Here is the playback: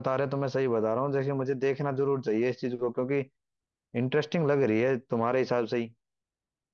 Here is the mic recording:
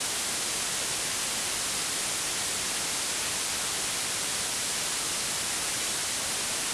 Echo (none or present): none